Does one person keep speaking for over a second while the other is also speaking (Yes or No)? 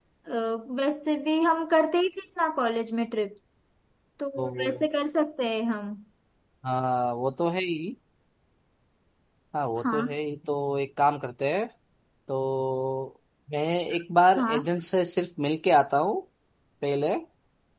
No